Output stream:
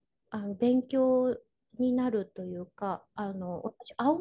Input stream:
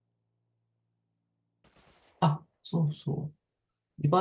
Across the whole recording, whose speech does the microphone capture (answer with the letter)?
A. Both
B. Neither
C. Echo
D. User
D